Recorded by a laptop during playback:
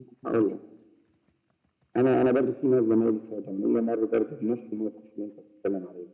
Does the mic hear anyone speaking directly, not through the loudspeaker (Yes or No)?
No